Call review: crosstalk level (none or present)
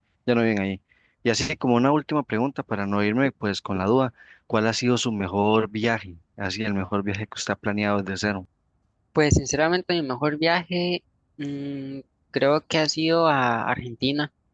none